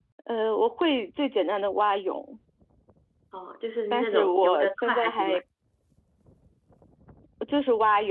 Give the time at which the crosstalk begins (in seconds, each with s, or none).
3.9 s